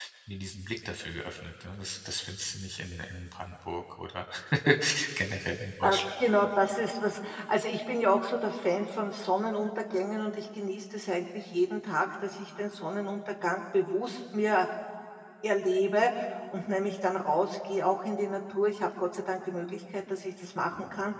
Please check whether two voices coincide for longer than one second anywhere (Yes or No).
No